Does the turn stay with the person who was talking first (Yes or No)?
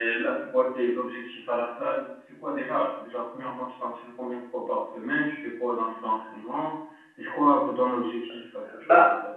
No